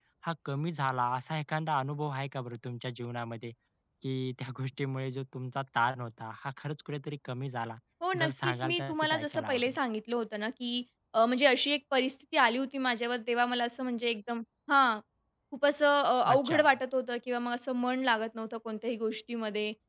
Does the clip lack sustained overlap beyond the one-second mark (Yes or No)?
No